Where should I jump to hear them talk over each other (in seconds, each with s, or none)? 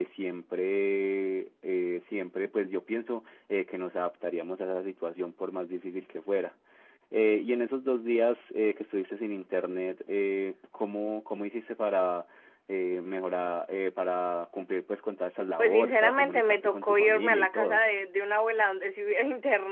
15.6 s